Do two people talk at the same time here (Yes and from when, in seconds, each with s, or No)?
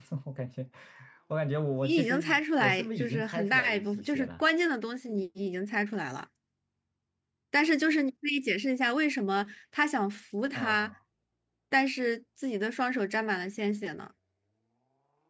Yes, from 1.8 s